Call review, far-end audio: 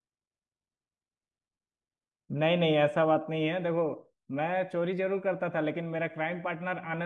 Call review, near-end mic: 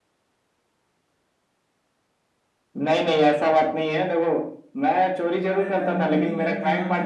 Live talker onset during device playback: 5.4 s

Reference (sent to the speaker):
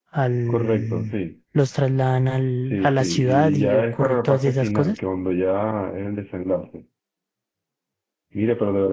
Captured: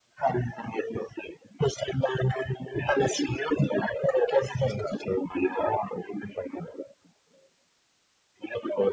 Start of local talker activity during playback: none

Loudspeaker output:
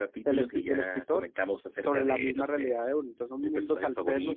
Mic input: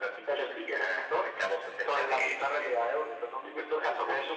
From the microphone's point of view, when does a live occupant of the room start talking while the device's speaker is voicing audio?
none

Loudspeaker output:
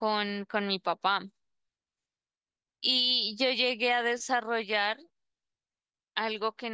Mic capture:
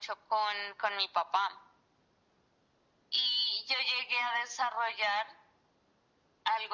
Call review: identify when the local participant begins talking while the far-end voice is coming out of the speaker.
none

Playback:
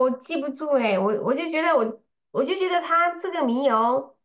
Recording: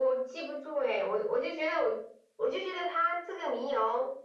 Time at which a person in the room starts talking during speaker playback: none

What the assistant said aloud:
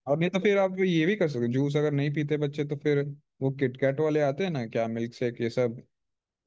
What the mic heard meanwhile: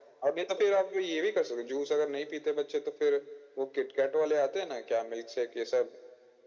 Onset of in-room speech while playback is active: none

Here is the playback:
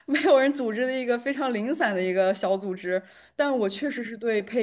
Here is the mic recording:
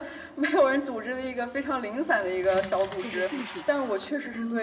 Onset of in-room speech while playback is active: 3.0 s

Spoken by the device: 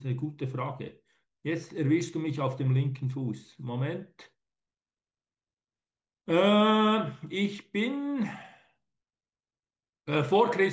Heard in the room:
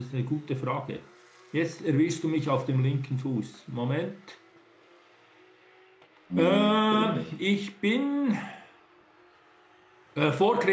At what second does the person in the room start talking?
6.3 s

